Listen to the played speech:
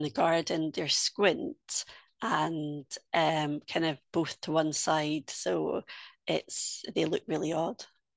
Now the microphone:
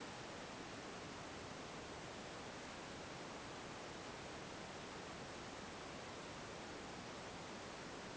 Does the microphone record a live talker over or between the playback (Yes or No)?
No